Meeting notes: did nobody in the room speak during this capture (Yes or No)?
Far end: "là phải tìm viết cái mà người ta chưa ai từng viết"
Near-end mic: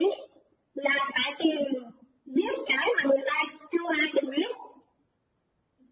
Yes